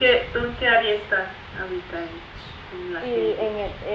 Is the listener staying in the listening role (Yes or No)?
No